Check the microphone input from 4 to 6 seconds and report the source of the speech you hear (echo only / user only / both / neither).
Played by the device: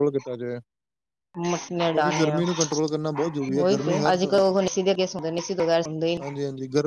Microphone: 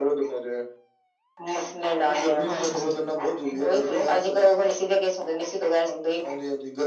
echo only